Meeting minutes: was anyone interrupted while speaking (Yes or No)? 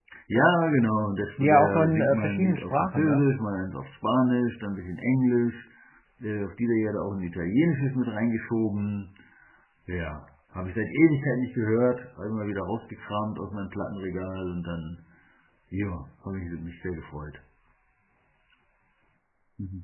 Yes